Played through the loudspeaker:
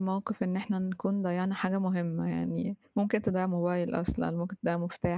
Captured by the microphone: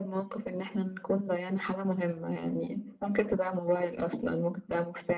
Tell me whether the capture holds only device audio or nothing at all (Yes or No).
Yes